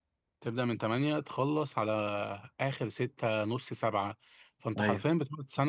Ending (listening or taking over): listening